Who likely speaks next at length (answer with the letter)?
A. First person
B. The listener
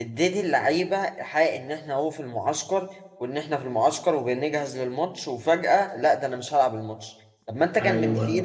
A